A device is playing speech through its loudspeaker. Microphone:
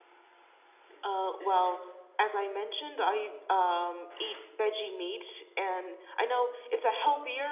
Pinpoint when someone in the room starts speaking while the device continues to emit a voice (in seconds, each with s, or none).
1.0 s